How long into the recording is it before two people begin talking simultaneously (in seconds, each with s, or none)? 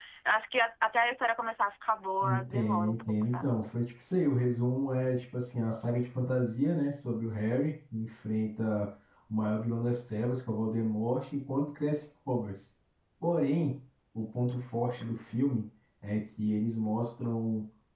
2.2 s